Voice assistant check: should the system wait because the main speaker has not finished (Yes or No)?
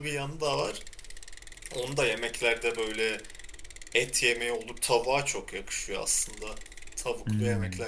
Yes